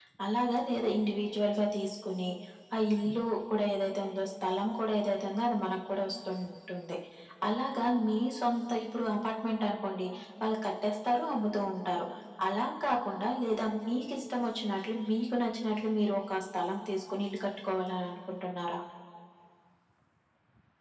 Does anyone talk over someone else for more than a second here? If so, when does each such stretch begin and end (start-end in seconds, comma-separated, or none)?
none